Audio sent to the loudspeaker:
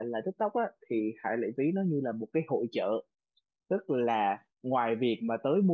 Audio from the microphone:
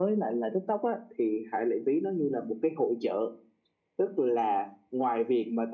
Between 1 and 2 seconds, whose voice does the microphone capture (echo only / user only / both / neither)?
echo only